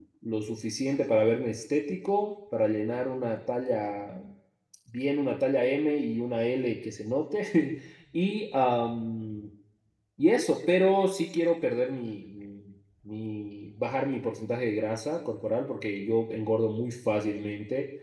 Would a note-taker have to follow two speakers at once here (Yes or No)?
No